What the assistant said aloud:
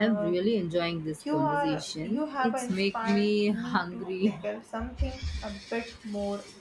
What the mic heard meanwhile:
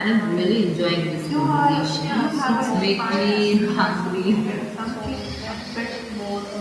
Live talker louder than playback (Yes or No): No